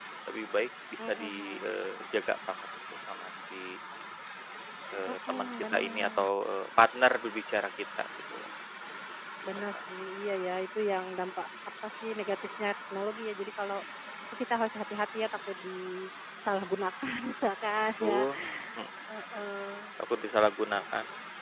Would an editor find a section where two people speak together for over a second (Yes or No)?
Yes